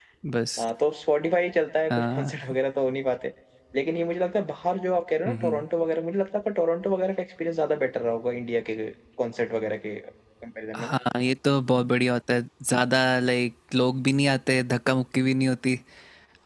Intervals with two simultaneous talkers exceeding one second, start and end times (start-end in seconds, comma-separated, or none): none